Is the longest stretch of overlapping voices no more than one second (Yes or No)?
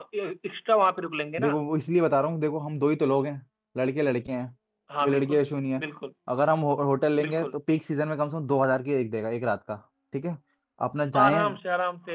Yes